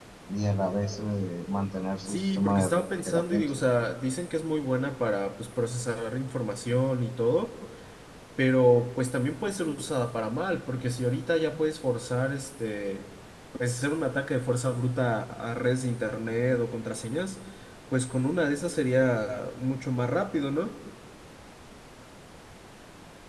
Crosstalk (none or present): present